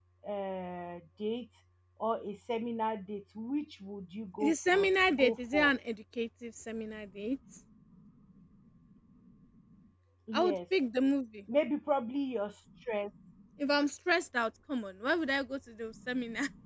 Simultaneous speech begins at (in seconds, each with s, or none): 4.4 s